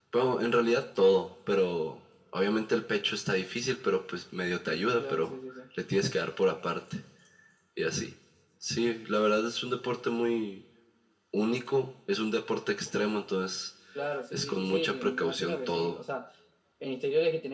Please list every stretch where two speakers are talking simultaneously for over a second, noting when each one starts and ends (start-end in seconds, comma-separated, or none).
14.3-16.0